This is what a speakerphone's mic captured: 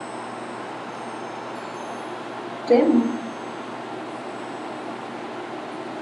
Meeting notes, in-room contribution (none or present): present